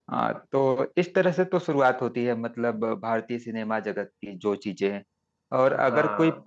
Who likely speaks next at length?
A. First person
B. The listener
A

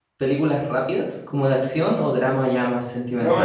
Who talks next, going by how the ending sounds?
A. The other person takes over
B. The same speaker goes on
A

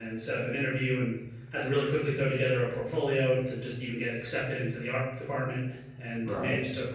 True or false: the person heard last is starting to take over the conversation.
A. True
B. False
B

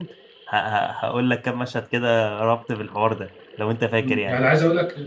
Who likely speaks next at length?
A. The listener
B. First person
A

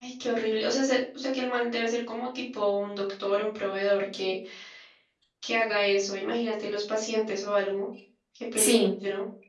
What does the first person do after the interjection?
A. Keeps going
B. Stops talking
B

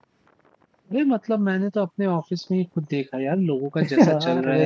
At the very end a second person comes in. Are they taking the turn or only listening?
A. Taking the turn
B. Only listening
B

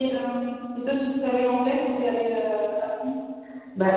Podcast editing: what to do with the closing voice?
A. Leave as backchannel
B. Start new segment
B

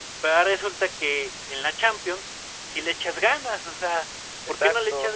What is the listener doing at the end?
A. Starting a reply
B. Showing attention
B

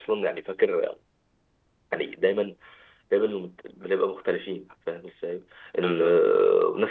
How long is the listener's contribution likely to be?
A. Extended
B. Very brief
B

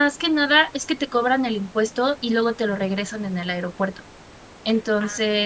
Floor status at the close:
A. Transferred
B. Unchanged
B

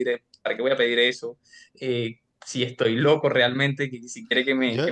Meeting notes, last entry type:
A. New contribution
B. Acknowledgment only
A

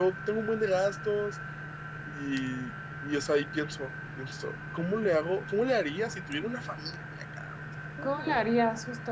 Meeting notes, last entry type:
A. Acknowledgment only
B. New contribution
B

